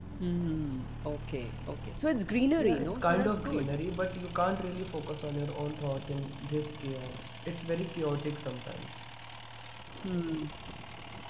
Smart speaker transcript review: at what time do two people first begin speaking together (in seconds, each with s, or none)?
2.5 s